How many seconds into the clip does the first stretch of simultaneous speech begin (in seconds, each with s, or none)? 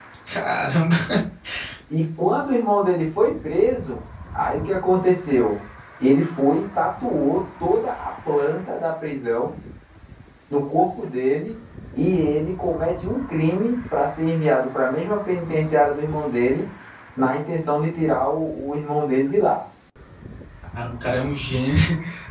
none